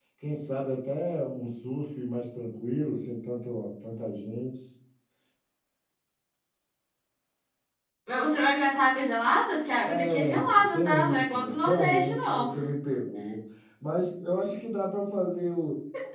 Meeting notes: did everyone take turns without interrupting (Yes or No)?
No